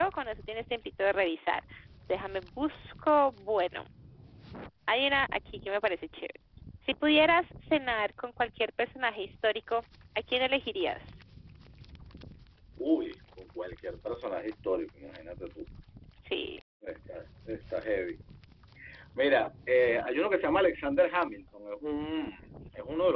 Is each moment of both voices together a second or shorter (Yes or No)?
Yes